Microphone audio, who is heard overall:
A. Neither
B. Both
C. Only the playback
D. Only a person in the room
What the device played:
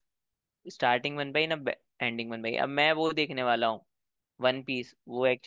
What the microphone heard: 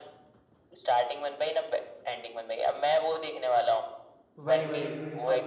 B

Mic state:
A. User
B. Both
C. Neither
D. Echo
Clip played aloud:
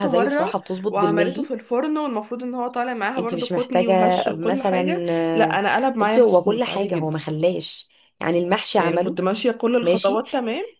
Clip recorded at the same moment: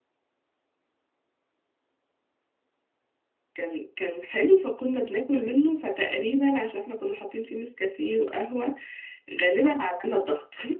A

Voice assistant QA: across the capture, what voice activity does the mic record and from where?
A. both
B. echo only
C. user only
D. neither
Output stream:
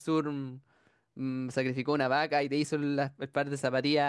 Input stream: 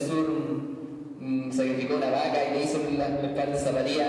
B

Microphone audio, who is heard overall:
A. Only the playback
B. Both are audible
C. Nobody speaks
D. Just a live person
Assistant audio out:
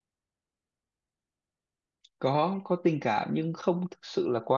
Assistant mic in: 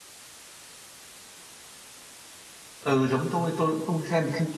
D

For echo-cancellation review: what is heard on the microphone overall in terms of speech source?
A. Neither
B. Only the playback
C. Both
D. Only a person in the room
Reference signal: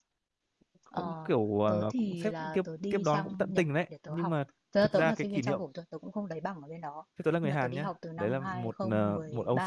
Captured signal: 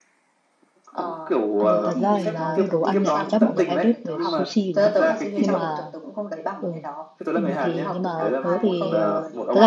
C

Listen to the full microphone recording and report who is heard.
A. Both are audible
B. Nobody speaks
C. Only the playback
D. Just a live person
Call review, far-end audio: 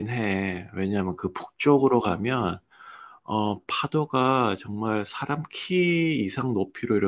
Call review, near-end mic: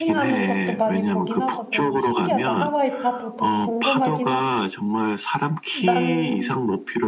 A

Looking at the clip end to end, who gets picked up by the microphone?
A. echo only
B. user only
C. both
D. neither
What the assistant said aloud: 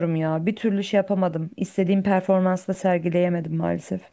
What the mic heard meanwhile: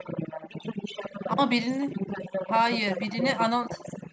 C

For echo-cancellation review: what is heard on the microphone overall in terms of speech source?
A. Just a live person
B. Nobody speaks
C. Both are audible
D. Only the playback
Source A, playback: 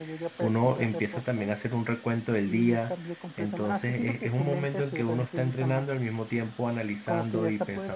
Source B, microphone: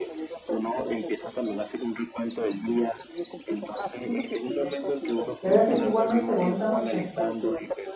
C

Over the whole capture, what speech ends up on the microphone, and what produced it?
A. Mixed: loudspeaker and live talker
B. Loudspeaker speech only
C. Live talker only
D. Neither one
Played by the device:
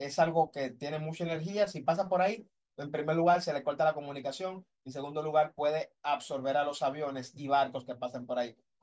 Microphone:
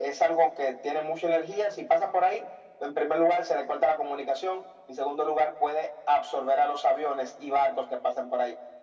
B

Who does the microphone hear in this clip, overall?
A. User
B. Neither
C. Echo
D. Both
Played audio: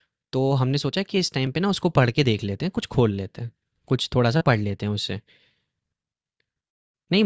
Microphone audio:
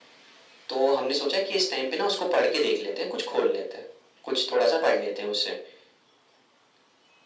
C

